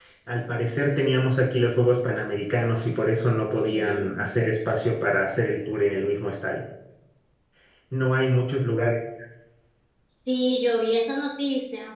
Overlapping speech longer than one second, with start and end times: none

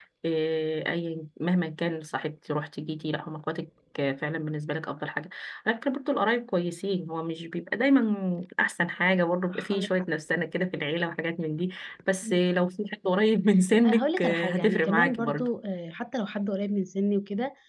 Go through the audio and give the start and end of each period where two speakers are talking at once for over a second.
13.8-15.5

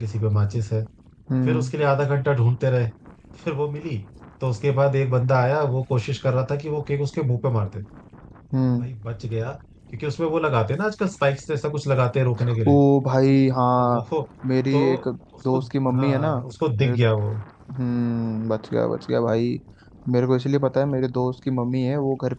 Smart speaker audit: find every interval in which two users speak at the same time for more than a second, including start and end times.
none

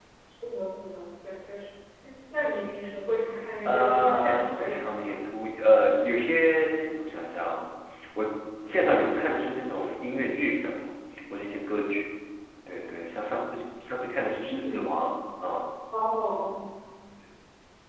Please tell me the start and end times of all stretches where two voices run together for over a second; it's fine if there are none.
3.6-5.2

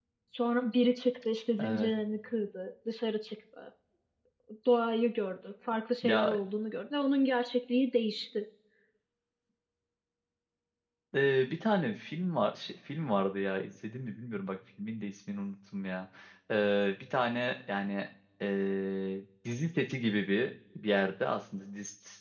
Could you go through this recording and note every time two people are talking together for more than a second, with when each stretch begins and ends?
none

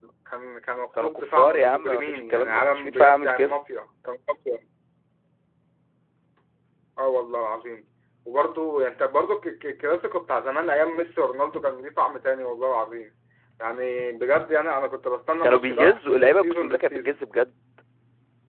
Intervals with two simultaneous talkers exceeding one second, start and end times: 1.0-3.5, 15.4-17.2

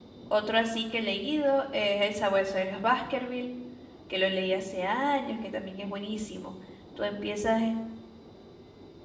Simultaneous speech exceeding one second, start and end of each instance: none

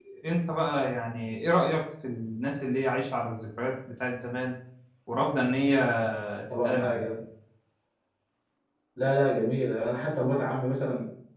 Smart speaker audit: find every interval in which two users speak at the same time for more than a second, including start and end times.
none

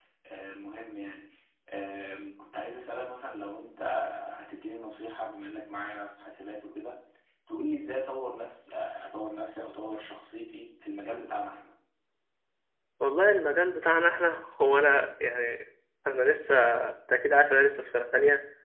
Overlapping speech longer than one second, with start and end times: none

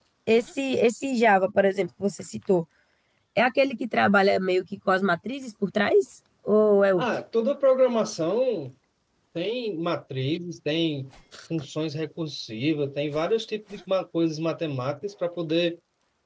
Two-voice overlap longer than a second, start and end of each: none

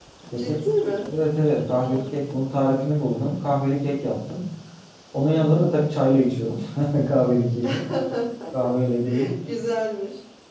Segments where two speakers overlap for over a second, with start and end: none

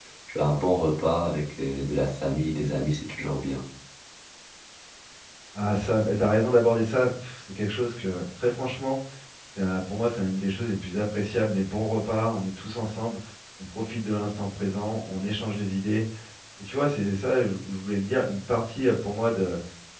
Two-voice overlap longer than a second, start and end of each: none

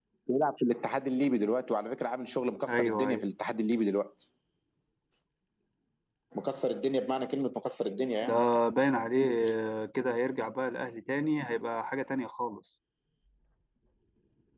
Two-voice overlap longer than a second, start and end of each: none

